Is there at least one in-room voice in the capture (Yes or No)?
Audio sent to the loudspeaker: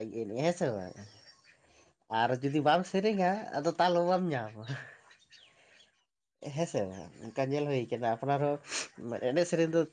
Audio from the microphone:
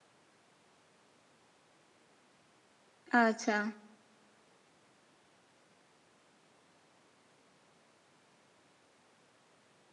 Yes